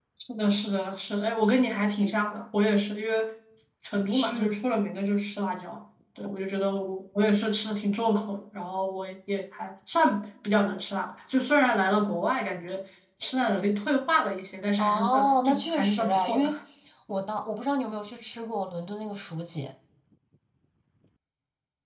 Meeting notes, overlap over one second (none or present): present